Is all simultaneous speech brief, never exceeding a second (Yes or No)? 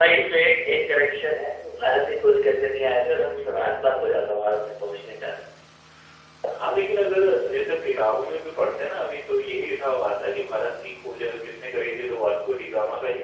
Yes